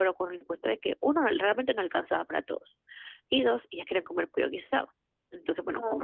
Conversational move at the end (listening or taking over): listening